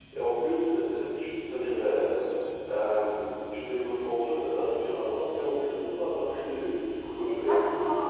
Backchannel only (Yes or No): No